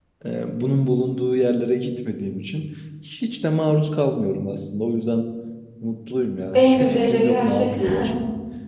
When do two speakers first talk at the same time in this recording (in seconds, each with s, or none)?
6.5 s